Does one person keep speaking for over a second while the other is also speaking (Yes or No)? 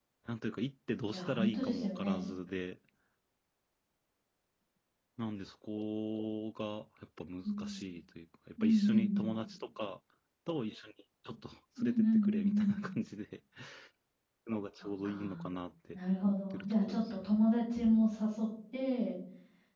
Yes